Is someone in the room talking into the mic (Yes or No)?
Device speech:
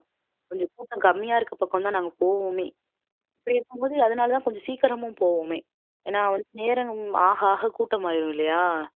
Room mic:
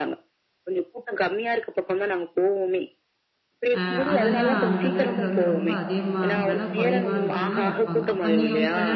Yes